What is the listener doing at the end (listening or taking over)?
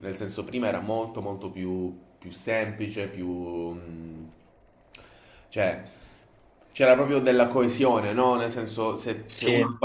listening